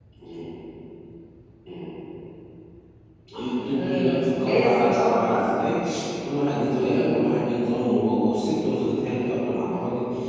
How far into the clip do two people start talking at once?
3.7 s

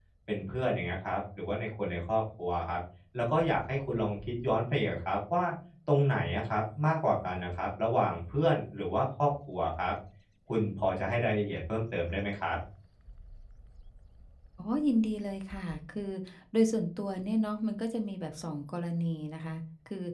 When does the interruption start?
none

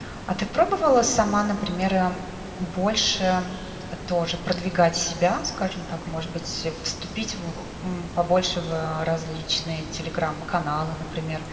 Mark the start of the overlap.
none

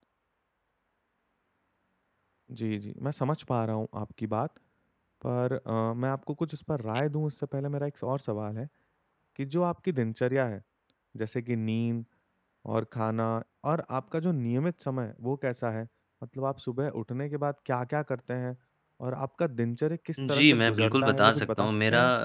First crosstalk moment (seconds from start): 20.2 s

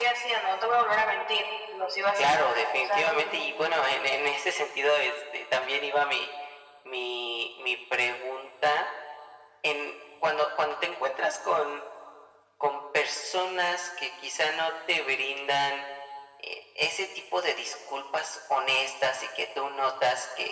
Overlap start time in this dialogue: 2.2 s

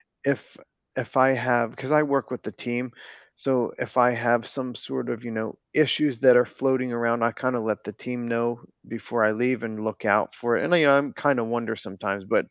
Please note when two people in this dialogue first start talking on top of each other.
none

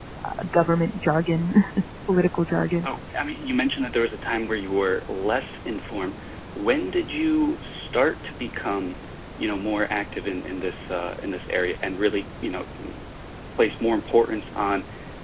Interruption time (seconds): none

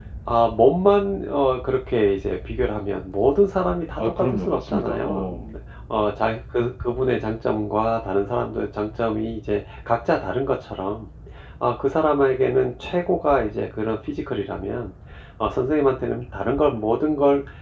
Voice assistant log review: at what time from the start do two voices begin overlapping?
4.0 s

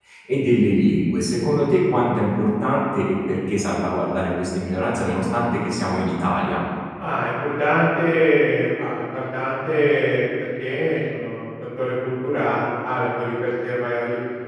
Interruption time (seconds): none

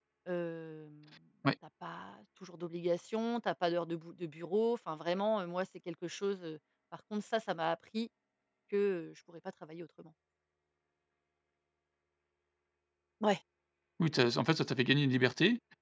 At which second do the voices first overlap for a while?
none

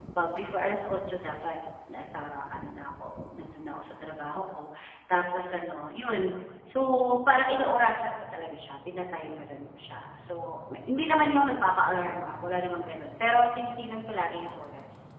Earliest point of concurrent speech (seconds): none

